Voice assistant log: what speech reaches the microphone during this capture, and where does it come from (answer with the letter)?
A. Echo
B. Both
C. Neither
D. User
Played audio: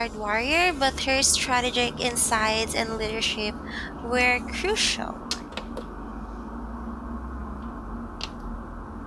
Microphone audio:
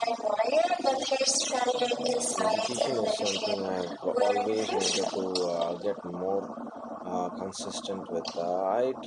B